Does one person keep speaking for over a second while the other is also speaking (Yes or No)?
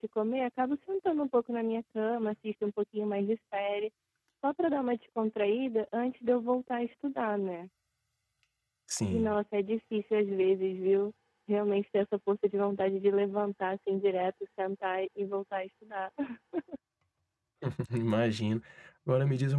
No